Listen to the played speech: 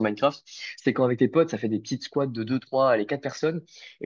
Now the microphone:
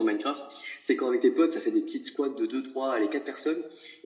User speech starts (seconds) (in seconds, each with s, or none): none